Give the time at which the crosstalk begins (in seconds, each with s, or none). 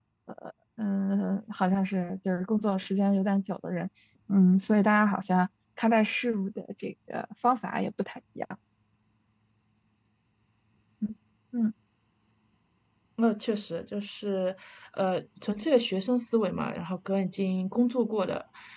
none